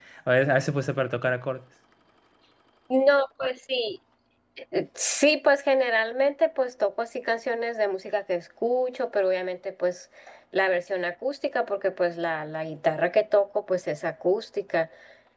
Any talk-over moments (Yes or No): No